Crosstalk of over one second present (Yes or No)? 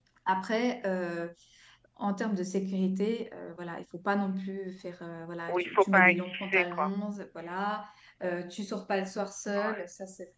Yes